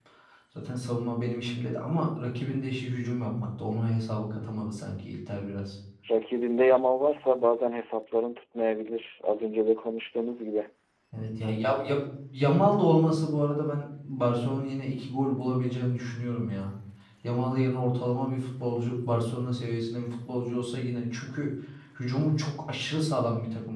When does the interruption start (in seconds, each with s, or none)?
none